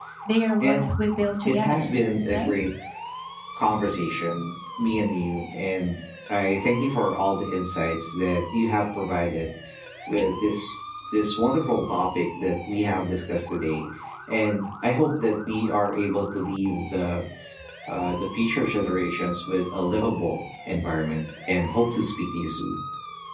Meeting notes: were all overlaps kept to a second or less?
Yes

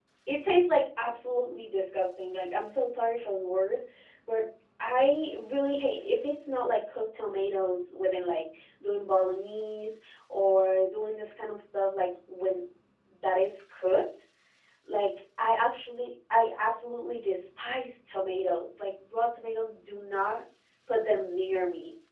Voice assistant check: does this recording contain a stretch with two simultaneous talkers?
No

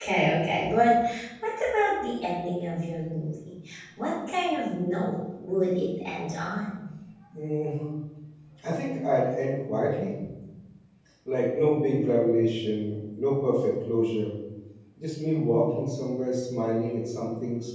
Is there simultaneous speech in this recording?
No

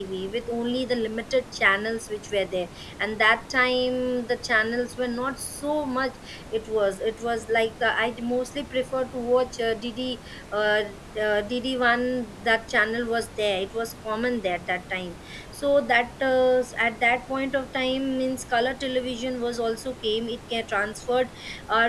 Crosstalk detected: No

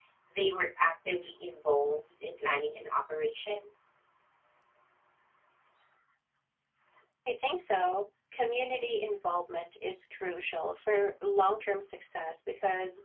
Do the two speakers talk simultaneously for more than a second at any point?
No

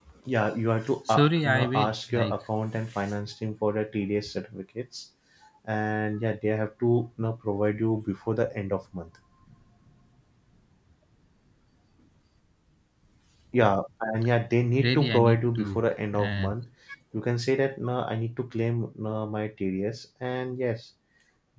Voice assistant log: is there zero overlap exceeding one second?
No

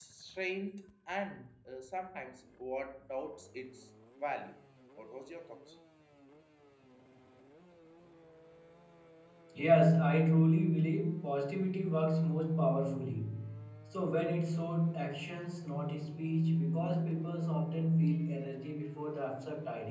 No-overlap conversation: Yes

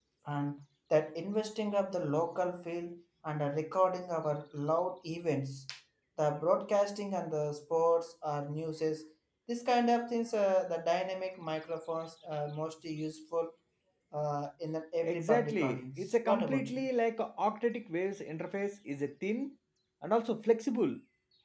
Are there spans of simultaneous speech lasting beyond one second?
Yes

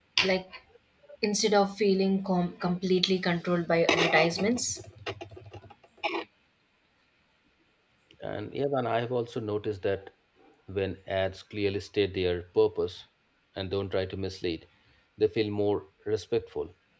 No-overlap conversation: Yes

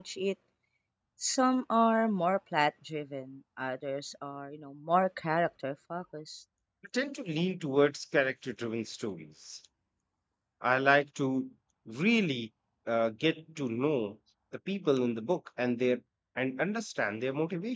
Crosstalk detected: No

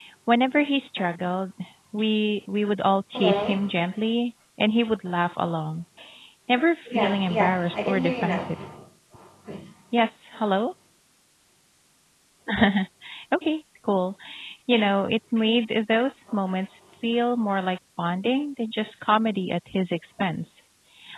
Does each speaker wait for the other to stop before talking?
No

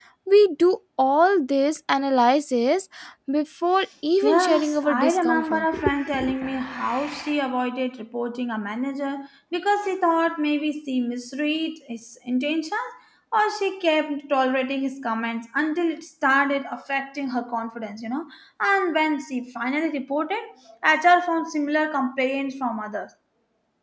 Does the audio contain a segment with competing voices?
Yes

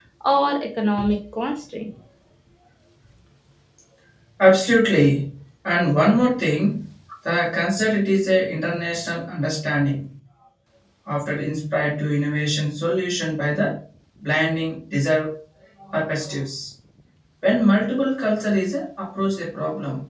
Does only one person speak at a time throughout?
Yes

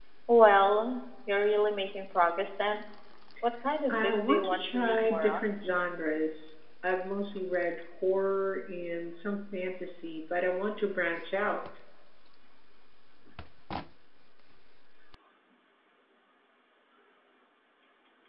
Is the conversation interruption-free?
No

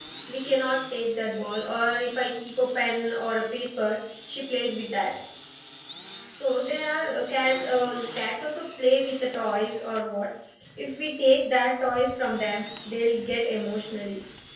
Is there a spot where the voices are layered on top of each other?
No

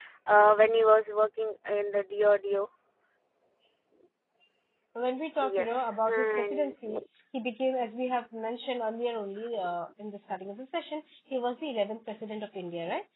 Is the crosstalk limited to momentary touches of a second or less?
No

